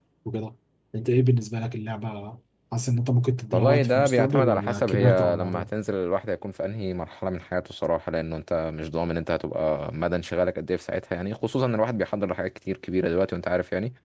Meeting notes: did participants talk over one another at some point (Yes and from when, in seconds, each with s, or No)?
Yes, from 3.5 s